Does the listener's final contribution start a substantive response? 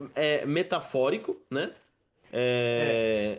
No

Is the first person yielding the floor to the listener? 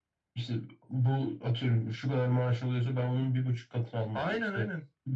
No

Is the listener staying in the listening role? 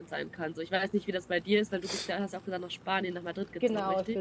No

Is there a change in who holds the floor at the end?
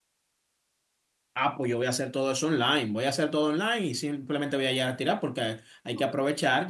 No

